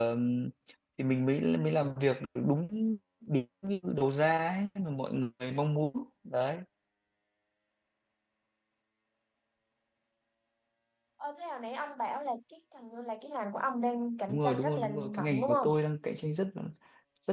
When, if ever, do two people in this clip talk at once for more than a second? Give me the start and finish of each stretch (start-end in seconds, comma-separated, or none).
14.3-15.7